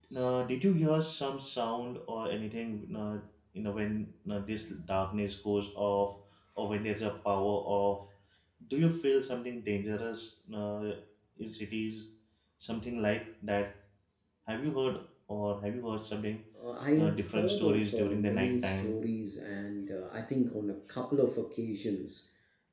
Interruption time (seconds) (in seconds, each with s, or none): 16.9 s